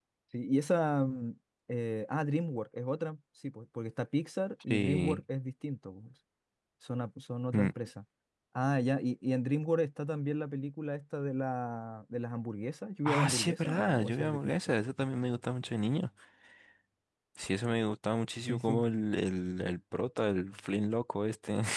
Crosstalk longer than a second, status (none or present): present